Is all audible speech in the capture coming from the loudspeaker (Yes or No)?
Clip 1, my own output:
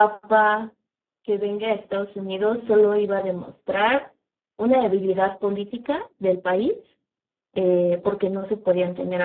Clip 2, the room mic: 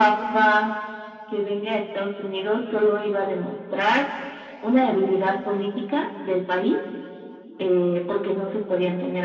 Yes